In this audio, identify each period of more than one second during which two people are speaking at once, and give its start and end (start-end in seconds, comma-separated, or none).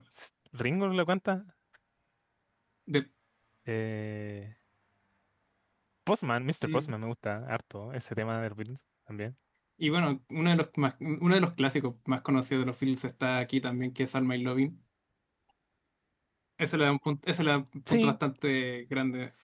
none